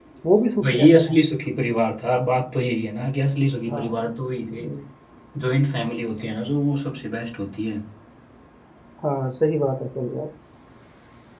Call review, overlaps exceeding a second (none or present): none